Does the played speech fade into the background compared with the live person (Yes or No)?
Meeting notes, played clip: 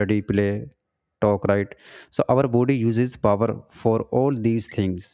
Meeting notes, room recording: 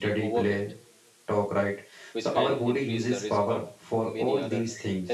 No